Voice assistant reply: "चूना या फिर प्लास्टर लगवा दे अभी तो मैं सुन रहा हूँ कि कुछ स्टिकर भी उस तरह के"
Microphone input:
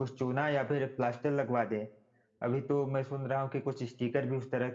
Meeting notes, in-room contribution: none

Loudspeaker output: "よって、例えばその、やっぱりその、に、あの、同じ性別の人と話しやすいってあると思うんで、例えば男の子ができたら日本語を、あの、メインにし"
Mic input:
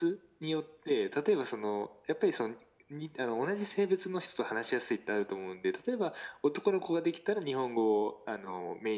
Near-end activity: none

